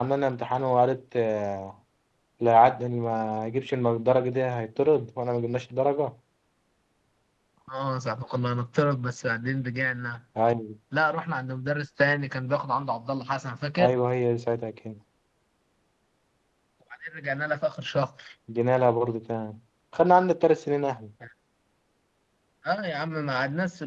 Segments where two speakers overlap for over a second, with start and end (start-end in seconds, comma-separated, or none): none